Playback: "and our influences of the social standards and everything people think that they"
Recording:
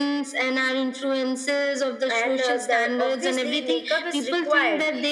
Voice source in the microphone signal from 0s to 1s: echo only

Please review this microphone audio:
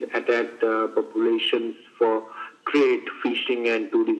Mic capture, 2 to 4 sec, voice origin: echo only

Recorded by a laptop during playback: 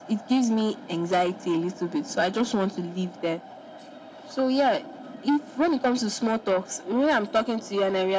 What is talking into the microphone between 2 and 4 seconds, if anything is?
echo only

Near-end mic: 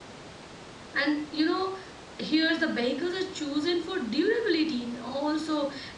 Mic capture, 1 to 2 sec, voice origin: user only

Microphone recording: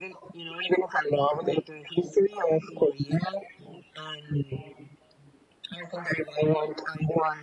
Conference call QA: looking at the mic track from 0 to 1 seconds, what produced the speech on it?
echo only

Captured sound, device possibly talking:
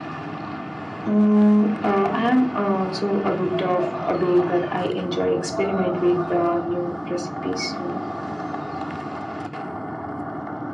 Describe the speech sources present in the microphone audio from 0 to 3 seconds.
echo only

